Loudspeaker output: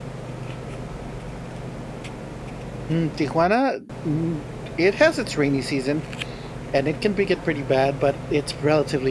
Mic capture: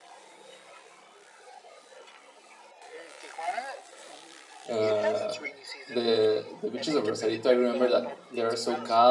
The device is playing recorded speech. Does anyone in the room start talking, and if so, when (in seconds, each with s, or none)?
4.7 s